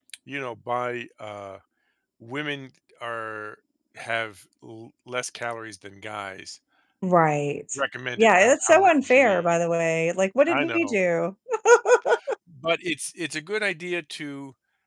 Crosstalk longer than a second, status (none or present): present